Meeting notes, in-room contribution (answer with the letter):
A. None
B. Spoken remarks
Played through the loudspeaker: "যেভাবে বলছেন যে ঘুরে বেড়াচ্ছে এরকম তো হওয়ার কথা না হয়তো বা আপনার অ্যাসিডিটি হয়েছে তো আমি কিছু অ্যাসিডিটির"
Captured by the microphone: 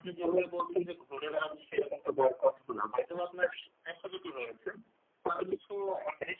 A